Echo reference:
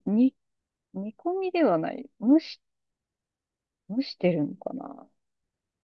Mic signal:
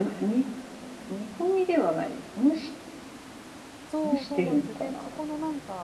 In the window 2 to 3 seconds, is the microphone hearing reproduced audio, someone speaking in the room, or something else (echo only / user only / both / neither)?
echo only